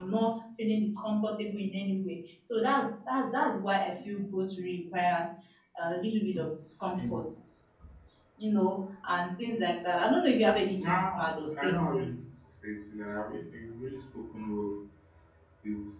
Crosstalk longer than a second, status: present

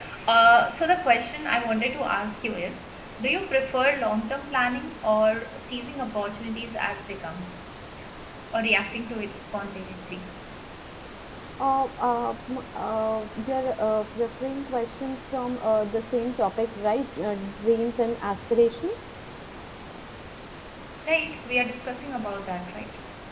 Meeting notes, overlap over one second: none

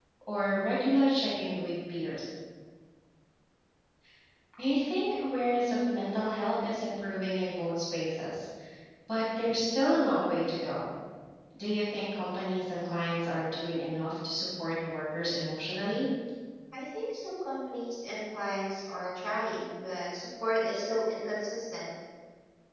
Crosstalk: none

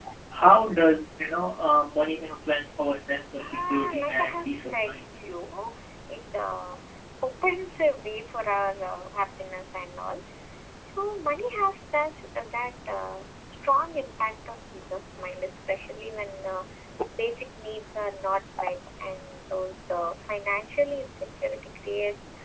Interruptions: present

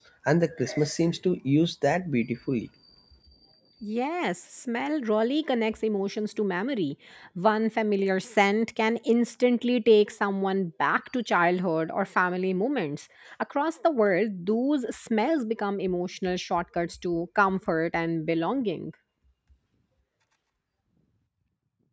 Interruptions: none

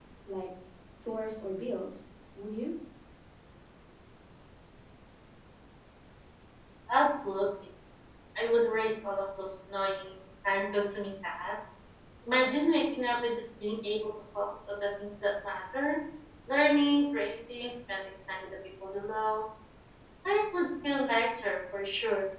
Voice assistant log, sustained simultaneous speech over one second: none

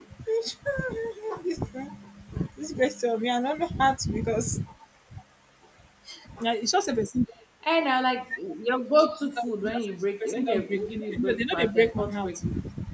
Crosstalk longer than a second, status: present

